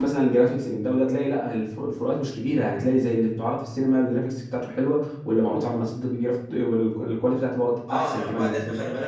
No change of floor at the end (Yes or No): No